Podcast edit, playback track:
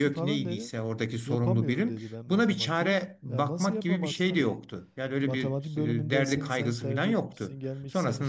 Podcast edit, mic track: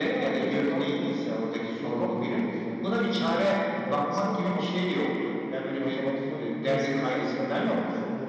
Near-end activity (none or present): none